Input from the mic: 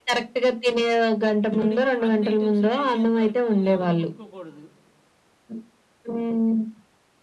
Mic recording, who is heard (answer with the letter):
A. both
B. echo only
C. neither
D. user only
A